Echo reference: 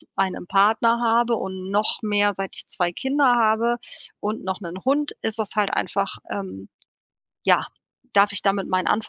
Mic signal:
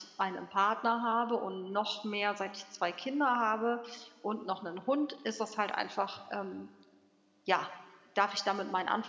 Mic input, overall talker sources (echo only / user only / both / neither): echo only